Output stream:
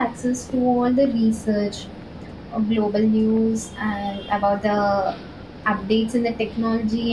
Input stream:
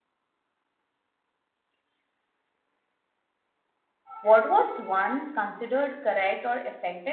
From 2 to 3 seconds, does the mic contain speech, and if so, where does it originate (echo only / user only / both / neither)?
neither